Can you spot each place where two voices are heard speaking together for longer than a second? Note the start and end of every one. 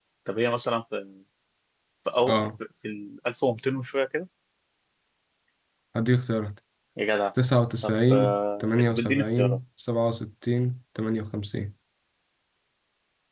7.8-9.6

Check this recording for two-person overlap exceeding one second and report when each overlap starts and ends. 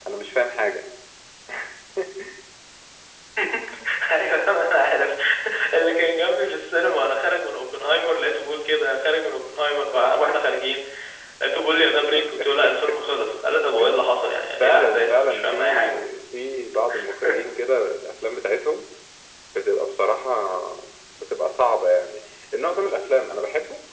14.6-16.0

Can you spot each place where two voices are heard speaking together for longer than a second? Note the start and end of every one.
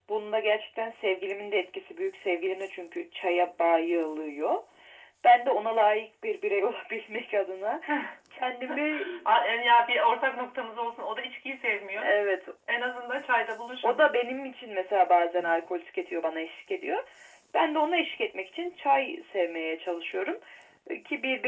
none

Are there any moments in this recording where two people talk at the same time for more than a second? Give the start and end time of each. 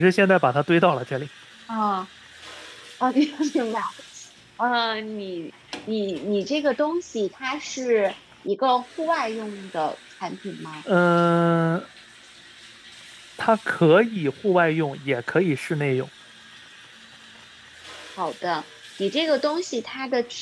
none

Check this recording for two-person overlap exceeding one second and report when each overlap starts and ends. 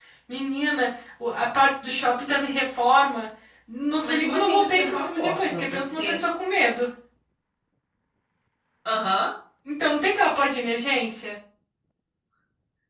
4.0-6.2

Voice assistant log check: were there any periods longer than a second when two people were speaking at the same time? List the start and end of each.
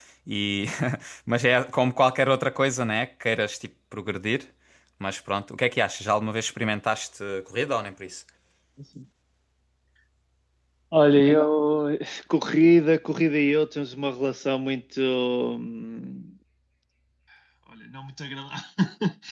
none

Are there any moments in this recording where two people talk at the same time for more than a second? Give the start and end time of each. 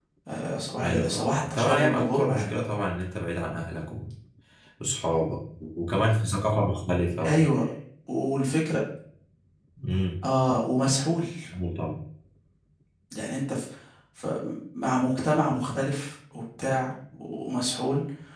0.8-2.5

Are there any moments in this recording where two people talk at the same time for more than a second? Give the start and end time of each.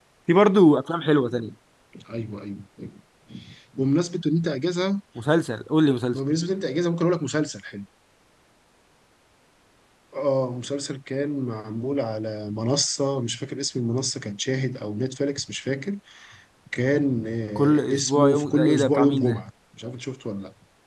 17.6-19.4

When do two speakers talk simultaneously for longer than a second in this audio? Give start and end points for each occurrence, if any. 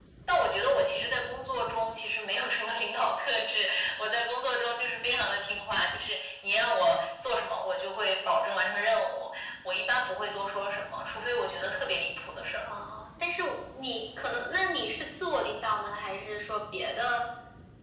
none

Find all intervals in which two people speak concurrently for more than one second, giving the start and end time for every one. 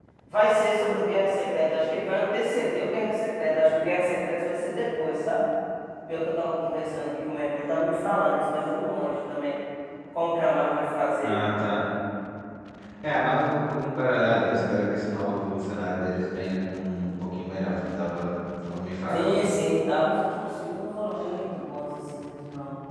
none

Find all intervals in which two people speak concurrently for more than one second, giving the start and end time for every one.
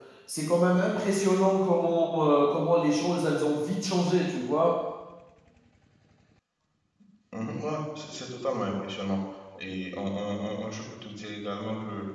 none

